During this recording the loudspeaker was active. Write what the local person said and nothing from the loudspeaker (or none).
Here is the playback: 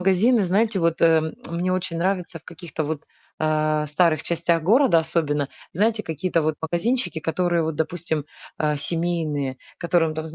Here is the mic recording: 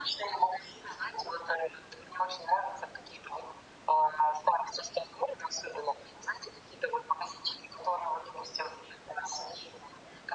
none